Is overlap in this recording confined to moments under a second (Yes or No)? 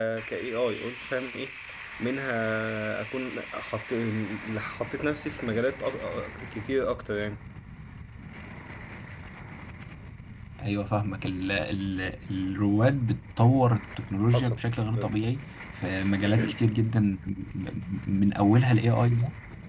Yes